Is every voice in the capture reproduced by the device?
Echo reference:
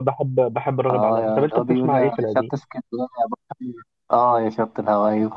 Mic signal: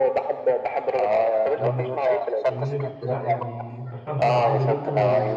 No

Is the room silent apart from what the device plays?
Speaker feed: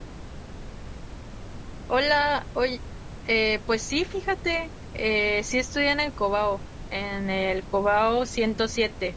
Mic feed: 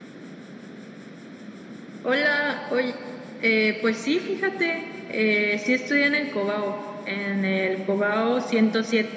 Yes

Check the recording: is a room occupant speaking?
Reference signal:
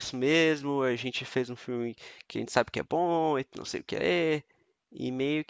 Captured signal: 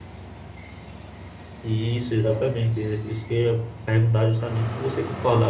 Yes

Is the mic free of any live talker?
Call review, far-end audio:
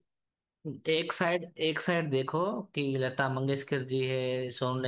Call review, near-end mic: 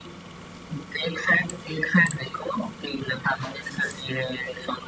Yes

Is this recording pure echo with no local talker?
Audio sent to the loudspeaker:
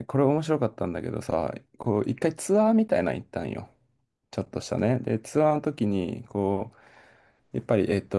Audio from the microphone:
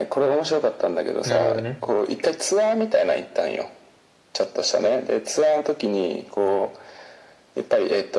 No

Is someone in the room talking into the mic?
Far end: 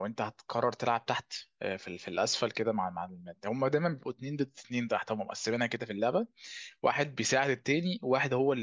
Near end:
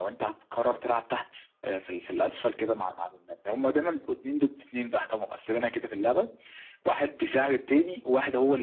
No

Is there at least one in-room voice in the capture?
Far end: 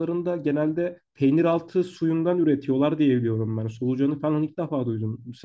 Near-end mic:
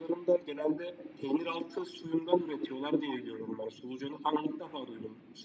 No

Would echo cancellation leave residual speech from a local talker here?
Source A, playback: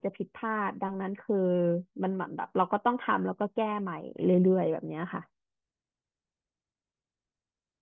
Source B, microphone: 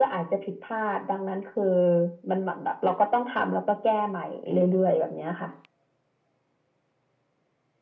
No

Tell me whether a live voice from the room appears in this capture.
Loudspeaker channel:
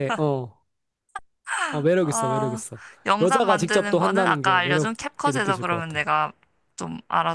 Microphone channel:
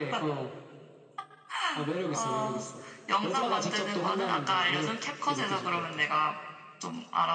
No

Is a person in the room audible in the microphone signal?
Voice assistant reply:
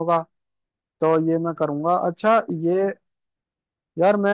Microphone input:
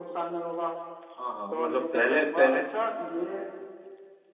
Yes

